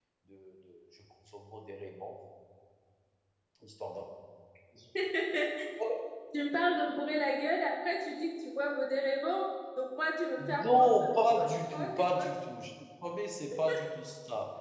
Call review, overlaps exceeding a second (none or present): present